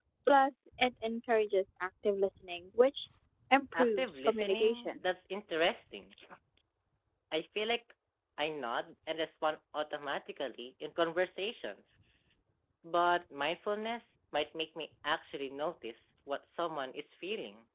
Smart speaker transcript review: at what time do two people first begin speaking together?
3.7 s

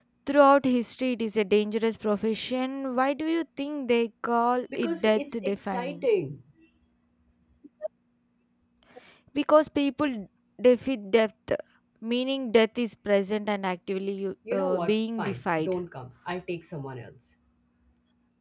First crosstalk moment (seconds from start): 4.8 s

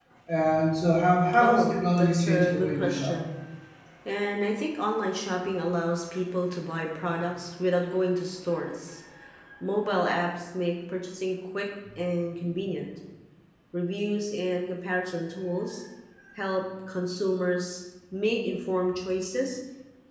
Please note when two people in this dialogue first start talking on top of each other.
1.4 s

